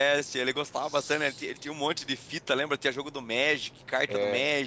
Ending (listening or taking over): taking over